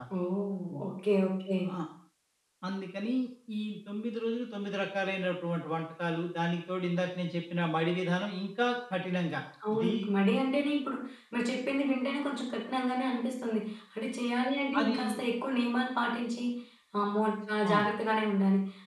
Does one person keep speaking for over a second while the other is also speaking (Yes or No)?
No